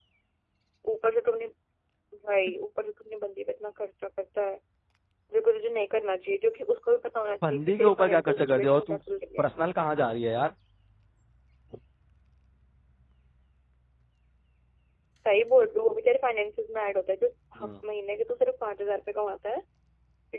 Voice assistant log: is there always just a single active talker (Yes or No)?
No